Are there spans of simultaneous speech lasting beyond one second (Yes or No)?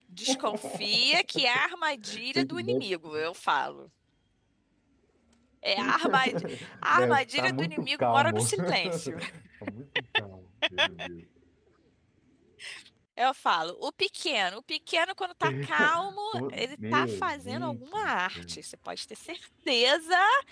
Yes